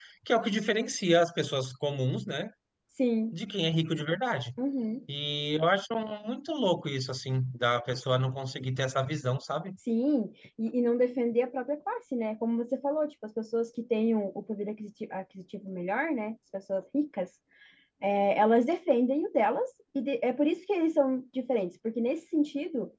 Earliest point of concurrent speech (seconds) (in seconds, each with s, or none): none